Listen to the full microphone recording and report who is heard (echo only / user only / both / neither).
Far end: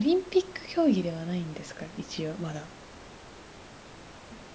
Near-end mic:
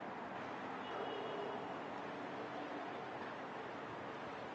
neither